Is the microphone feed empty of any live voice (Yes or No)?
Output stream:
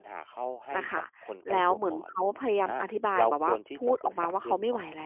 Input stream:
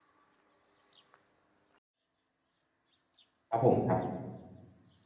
No